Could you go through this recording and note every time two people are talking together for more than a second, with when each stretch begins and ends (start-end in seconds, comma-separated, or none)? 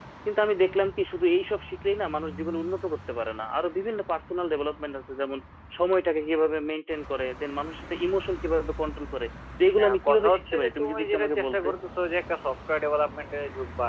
9.8-11.7